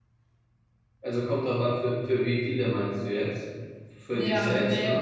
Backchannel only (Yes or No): No